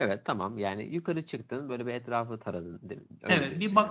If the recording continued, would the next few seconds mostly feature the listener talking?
Yes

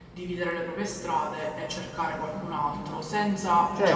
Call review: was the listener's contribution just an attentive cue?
No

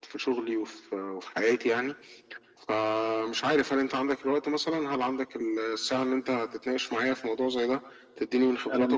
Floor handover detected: No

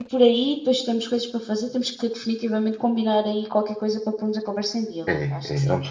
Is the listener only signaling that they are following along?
No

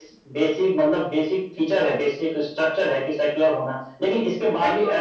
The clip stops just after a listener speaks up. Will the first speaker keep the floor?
Yes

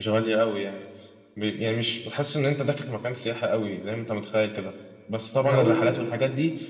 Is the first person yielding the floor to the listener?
No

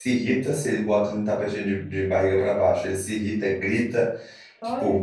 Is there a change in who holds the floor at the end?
No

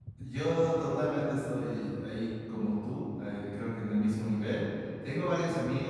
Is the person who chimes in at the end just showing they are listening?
Yes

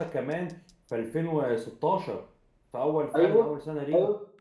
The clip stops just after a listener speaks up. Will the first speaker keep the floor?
No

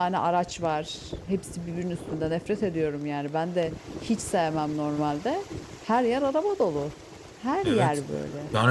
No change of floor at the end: No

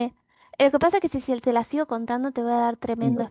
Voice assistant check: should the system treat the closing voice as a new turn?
Yes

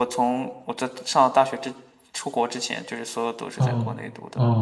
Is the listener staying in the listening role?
No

